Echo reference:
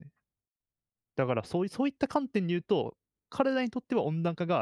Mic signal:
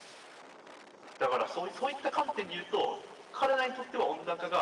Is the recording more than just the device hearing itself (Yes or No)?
No